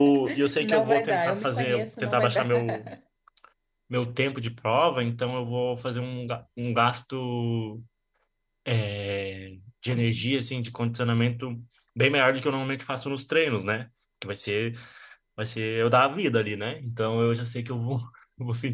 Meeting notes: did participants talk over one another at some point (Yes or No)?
Yes